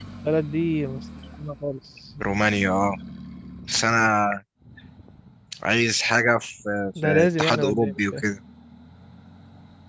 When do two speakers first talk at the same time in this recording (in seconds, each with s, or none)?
7.0 s